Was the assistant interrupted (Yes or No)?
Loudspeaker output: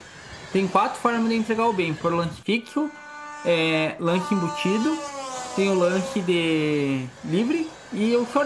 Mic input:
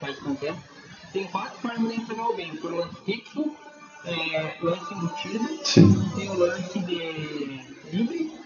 Yes